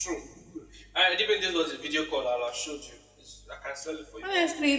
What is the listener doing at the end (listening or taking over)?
taking over